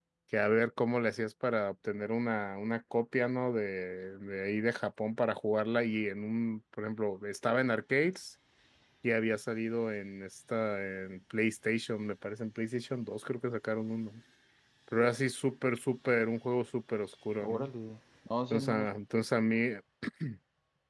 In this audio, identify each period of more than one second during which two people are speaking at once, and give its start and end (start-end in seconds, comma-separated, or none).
none